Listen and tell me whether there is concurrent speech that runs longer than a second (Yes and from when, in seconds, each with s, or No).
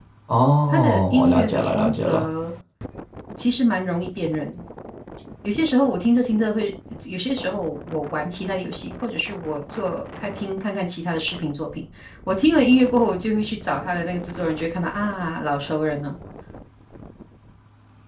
Yes, from 0.7 s